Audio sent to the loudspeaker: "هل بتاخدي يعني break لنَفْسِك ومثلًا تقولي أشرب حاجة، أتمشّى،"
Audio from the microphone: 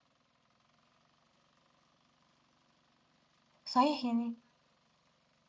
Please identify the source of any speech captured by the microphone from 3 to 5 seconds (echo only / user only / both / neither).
user only